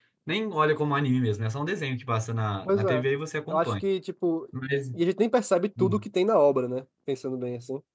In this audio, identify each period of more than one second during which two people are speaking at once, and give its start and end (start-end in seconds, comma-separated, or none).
none